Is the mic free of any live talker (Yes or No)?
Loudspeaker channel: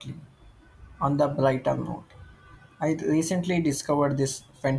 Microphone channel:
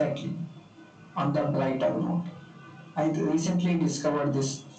Yes